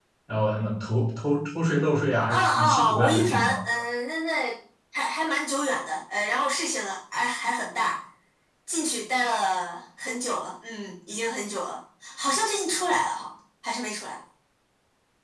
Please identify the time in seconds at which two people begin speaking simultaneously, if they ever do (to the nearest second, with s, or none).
2 s